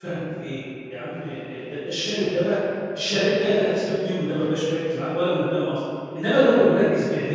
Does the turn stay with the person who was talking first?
Yes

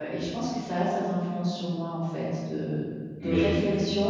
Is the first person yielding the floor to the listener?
No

